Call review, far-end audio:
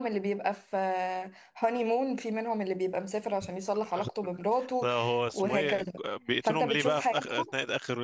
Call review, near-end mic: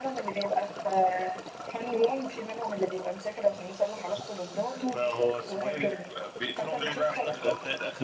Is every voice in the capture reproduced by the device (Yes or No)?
Yes